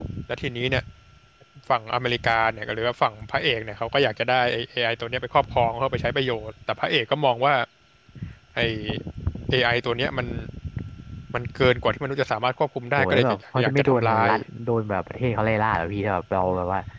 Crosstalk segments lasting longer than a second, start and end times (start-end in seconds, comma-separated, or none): 13.0-14.3